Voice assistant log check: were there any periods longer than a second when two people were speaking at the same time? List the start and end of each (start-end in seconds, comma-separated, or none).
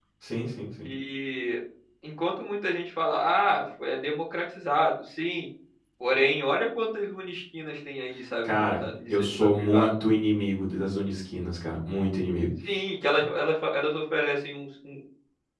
8.4-9.9